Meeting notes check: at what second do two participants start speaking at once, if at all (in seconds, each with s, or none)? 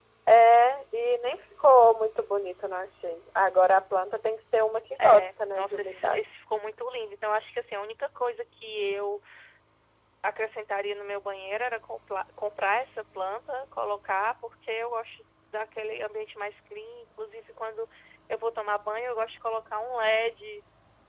5.0 s